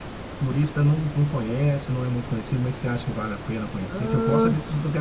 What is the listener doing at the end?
listening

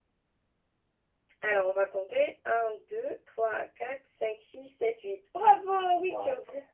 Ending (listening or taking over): taking over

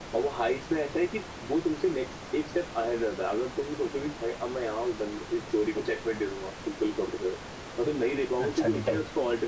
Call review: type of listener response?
listening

